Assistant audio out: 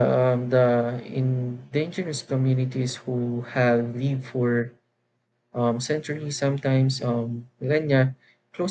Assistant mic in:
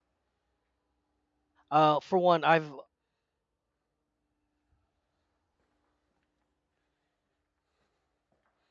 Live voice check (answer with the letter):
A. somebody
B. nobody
A